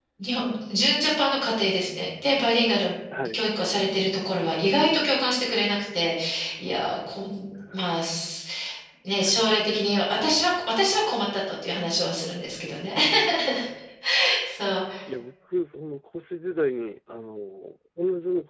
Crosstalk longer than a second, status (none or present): none